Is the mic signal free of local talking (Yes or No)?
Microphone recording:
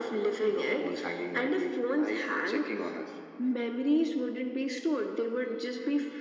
Yes